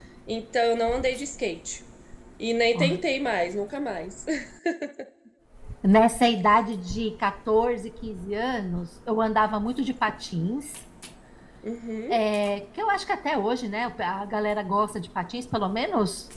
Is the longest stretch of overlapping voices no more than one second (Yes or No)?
Yes